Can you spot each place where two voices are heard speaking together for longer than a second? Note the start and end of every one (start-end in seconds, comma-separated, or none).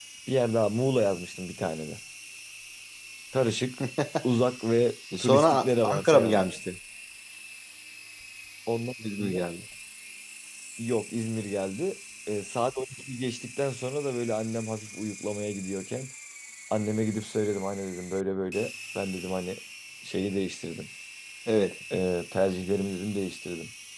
5.2-6.5